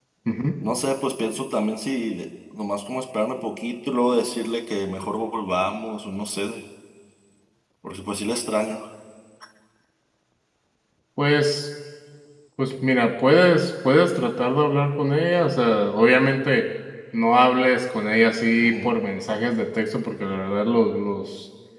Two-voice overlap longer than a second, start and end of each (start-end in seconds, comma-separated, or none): none